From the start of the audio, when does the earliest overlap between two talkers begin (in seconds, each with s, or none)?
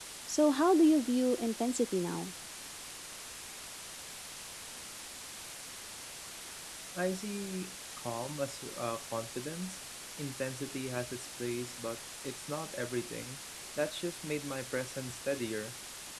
none